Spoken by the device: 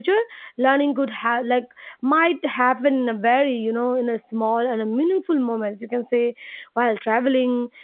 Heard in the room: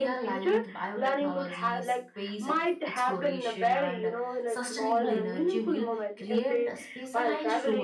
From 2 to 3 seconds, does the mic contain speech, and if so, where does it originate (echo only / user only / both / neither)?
both